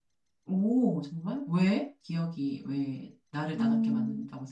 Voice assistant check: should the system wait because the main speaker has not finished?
No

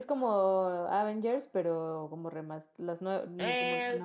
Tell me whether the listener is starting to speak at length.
Yes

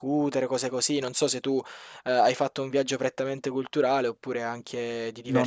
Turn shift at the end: Yes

